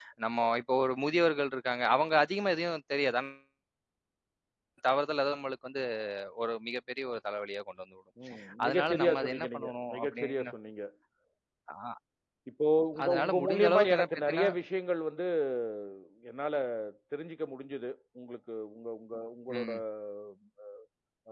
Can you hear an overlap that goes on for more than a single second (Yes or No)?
Yes